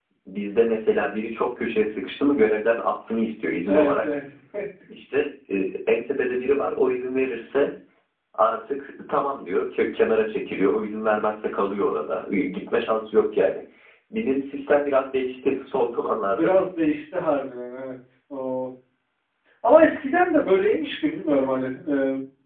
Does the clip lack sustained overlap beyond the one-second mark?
Yes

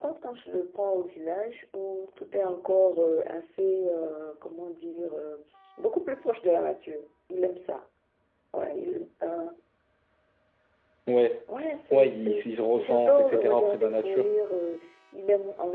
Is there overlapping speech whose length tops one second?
Yes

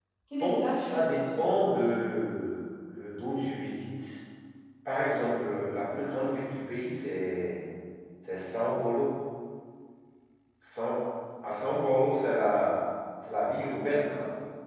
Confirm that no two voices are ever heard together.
No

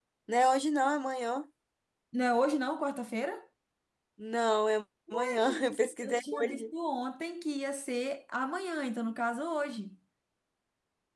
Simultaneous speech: Yes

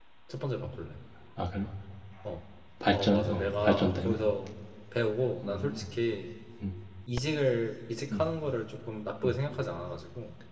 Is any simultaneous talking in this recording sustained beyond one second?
Yes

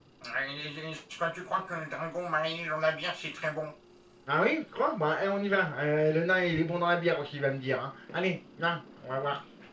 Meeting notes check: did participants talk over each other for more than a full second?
No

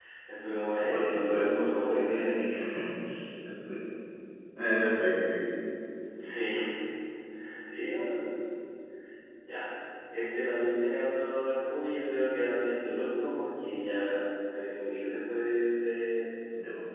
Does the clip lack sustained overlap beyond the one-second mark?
No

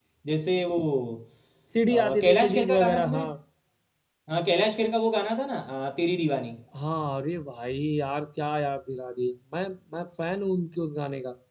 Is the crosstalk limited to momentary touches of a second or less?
No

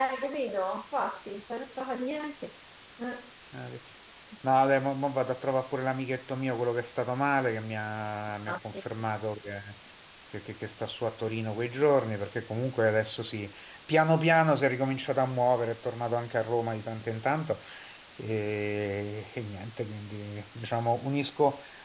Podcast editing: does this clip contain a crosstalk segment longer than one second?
No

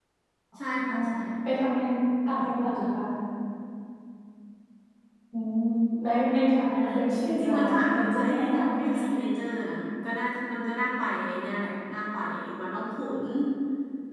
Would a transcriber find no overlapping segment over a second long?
No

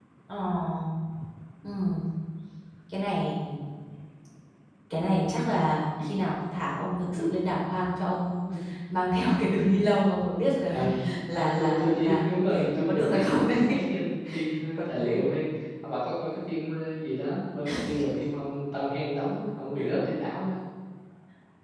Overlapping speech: Yes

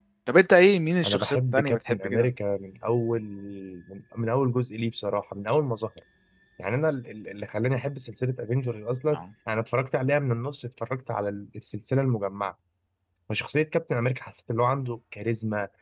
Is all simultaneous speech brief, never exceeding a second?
No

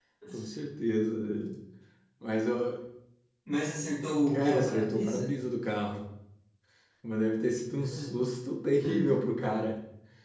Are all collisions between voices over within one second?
No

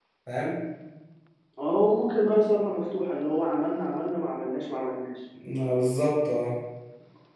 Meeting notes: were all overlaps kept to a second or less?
Yes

